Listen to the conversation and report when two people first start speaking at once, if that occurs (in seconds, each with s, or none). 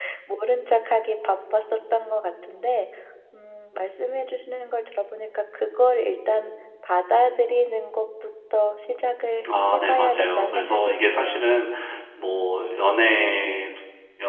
9.7 s